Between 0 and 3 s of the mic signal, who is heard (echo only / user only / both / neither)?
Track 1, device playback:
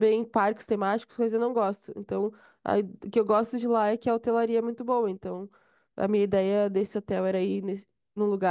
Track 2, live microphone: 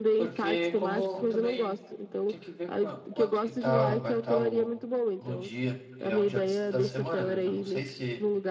both